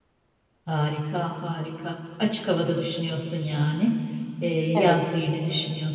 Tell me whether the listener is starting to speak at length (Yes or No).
No